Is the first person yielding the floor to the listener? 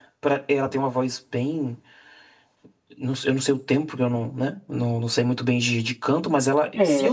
Yes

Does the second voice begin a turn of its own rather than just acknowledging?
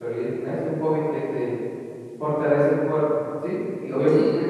No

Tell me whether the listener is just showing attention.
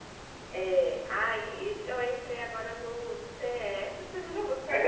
No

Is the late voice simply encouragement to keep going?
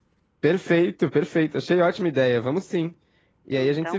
Yes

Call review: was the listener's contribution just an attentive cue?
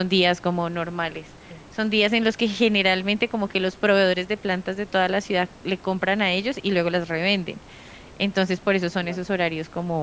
Yes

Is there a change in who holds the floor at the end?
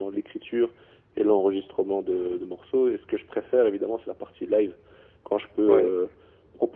No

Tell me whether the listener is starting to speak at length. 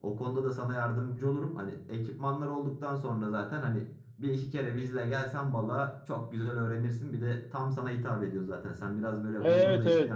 Yes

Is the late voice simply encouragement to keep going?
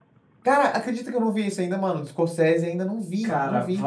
No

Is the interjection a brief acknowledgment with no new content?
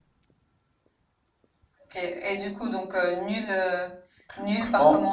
No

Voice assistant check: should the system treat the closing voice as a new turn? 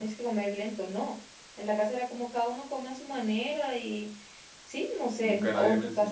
Yes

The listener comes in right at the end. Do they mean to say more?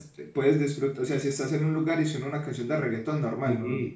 Yes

